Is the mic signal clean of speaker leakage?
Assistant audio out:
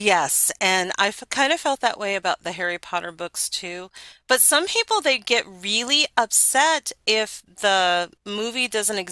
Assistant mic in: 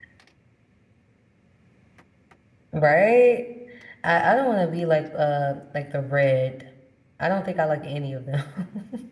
Yes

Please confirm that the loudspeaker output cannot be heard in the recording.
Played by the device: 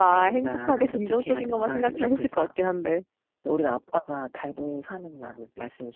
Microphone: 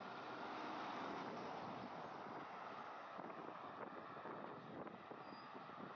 Yes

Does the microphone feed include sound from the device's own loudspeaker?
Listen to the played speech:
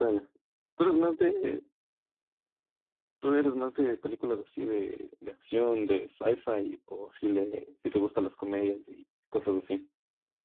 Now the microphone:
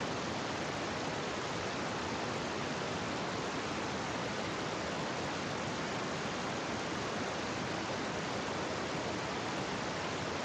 No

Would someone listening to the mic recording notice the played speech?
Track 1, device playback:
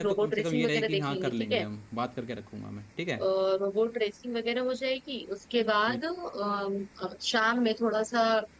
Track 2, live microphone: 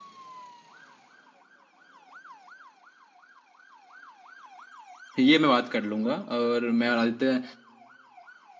No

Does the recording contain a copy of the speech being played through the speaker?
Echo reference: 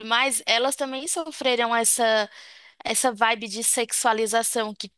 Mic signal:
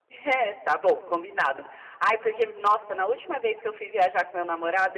No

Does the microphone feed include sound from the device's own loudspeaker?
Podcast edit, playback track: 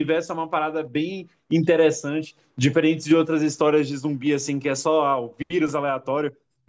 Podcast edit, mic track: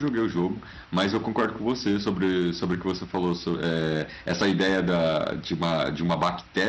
No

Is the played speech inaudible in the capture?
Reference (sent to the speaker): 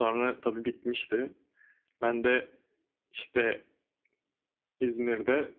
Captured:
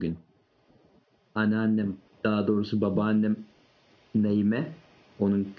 Yes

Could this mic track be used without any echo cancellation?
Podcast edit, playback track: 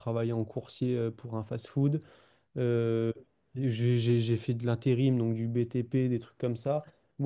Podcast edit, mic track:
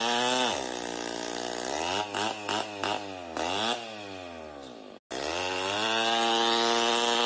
Yes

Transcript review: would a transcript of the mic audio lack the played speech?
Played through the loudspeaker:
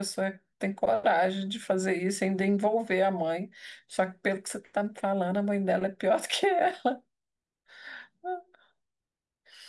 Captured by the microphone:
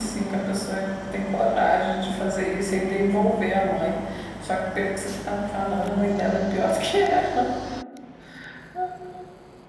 No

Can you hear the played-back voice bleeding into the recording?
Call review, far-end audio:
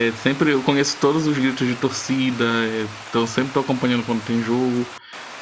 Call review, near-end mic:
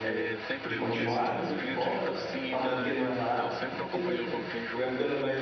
Yes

